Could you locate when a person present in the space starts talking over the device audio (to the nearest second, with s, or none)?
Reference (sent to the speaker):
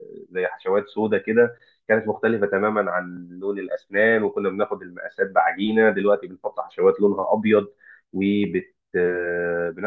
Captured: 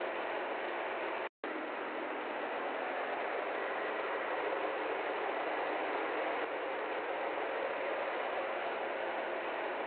none